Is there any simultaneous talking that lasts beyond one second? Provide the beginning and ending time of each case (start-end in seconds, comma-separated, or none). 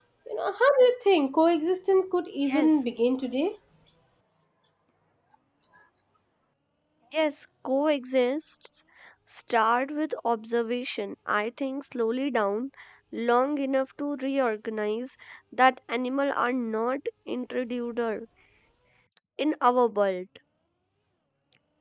none